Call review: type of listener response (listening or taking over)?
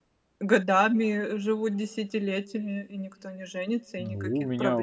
taking over